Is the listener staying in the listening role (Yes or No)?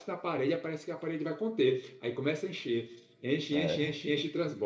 Yes